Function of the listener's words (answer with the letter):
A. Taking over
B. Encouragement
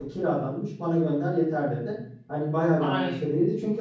B